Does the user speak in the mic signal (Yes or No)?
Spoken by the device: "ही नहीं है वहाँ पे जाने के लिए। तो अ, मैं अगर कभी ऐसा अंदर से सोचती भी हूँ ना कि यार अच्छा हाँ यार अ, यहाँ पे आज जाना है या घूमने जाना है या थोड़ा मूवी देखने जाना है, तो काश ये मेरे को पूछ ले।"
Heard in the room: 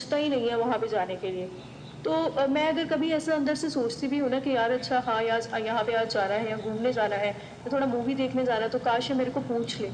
No